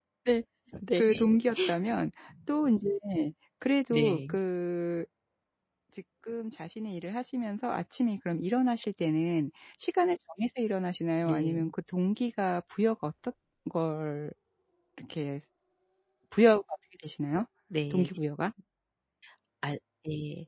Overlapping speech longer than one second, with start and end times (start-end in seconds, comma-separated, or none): none